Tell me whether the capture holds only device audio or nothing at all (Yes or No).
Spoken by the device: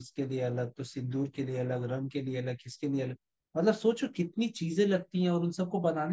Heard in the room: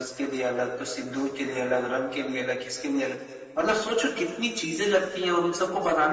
Yes